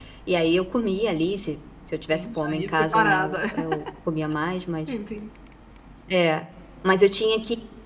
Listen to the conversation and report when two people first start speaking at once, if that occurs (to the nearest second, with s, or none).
2 s